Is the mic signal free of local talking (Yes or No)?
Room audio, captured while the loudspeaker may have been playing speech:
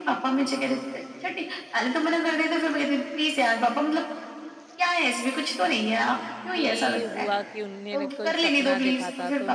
No